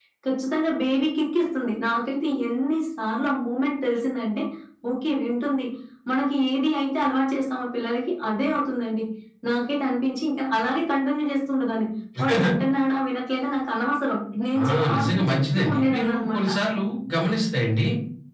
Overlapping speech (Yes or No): Yes